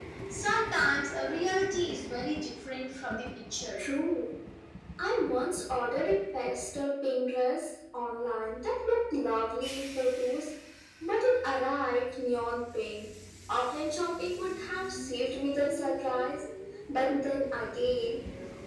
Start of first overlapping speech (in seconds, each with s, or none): none